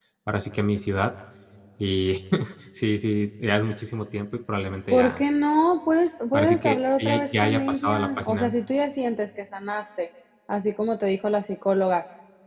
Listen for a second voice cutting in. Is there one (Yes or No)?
Yes